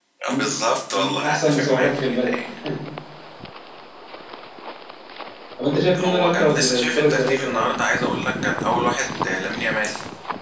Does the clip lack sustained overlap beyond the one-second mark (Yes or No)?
No